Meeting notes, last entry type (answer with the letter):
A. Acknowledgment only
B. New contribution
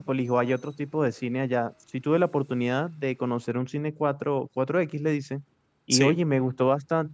A